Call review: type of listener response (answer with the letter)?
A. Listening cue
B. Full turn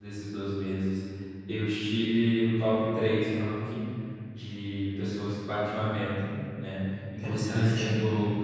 A